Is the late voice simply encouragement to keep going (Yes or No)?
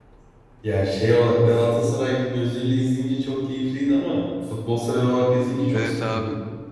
No